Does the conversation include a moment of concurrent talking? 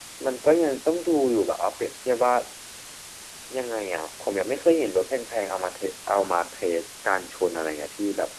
No

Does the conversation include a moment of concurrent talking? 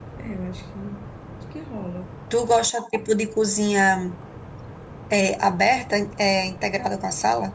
No

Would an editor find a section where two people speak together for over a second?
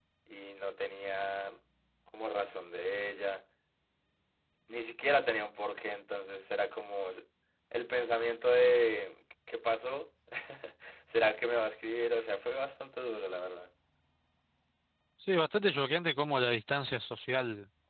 No

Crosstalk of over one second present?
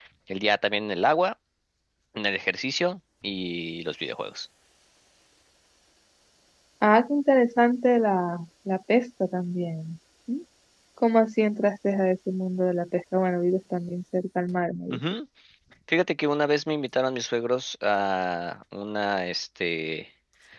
No

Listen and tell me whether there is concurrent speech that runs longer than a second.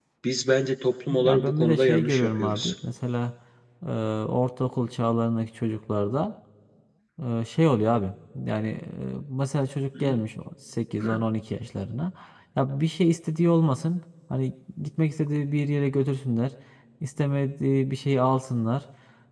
Yes, from 1.2 s

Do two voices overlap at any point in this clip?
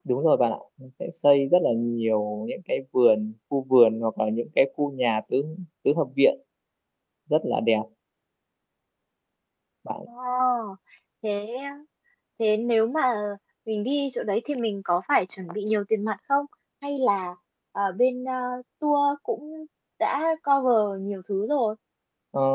No

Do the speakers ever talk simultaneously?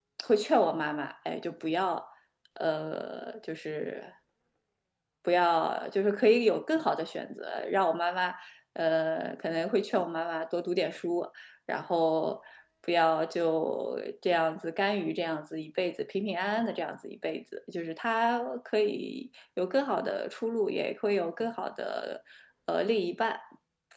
No

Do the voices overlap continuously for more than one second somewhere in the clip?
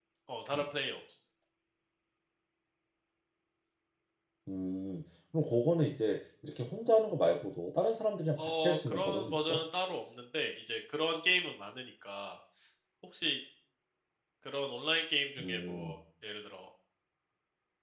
Yes, from 8.4 s

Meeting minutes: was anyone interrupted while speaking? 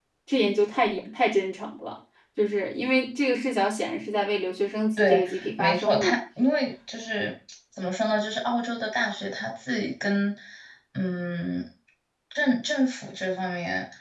Yes, from 5.0 s

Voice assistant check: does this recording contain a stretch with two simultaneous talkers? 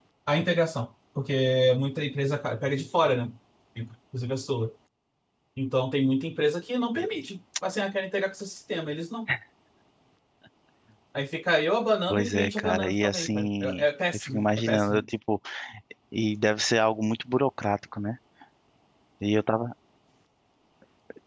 Yes, from 12.1 s

